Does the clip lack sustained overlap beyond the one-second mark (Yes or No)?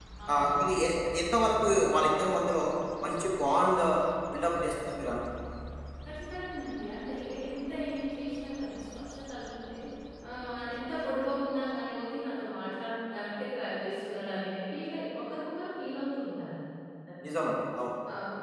Yes